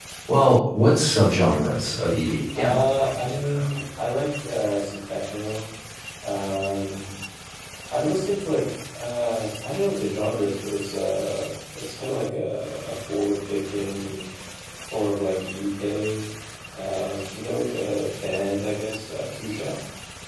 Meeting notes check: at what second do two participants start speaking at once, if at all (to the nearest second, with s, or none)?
3 s